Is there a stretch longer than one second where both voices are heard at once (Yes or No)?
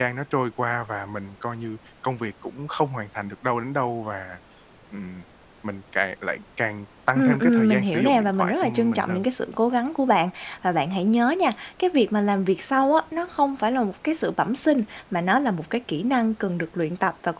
Yes